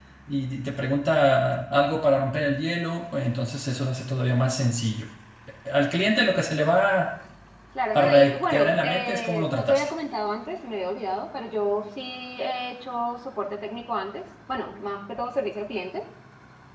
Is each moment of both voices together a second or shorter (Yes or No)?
No